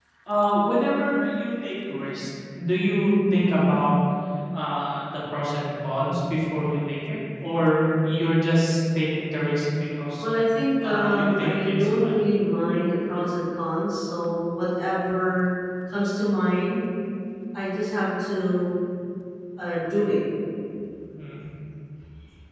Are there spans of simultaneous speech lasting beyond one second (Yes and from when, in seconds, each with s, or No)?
Yes, from 10.8 s